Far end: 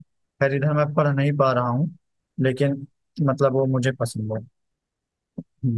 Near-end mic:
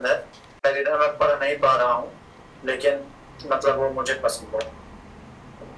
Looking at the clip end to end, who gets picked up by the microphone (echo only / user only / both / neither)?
echo only